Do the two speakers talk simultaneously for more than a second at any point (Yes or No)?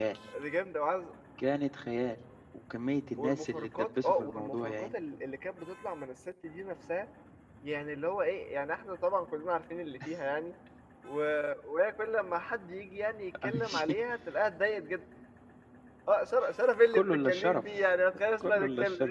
Yes